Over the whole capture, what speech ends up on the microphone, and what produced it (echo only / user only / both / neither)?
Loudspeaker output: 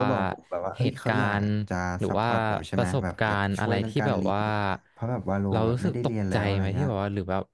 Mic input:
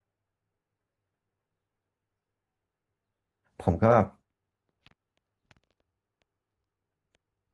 user only